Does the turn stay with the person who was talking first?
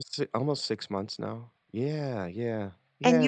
No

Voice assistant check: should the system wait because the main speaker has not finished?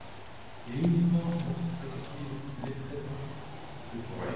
Yes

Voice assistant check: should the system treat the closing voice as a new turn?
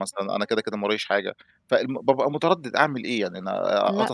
No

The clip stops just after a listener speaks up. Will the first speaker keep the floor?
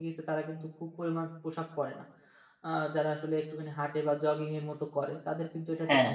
Yes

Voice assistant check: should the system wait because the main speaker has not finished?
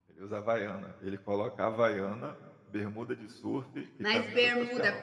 No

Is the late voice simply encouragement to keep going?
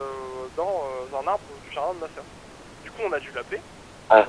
Yes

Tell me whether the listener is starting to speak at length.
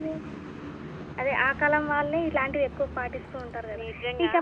No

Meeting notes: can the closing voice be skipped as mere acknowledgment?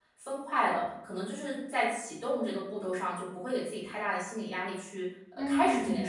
No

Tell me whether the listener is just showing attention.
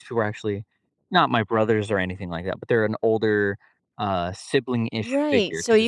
No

